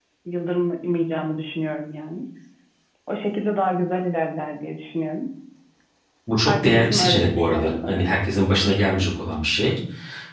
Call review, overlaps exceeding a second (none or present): present